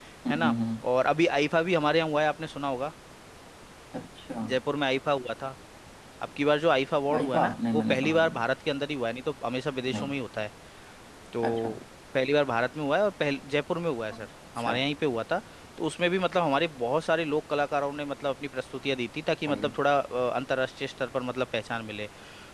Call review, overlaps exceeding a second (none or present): present